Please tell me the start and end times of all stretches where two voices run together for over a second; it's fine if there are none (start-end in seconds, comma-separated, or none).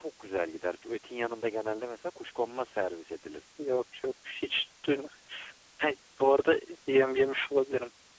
none